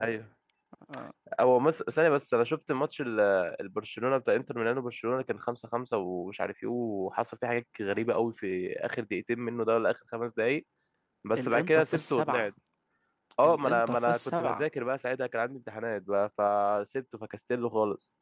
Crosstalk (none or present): present